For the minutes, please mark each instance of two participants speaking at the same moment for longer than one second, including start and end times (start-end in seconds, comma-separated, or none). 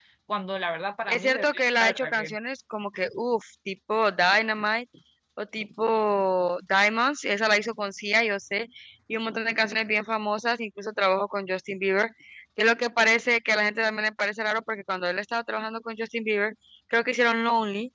1.1-2.4